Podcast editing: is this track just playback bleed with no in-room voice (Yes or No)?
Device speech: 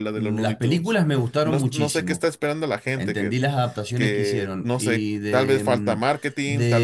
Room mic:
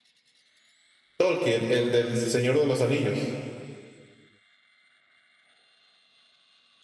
No